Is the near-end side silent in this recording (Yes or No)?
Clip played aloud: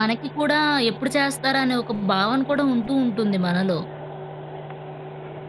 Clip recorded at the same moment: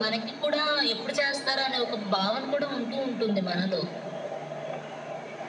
Yes